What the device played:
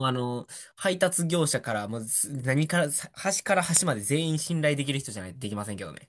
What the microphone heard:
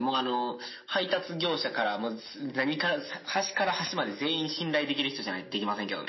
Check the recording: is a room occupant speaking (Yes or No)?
No